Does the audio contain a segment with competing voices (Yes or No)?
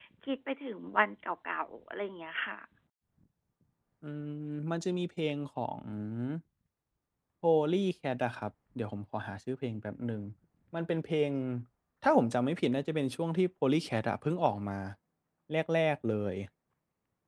No